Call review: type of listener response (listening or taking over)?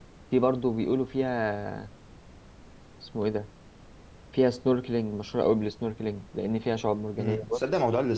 taking over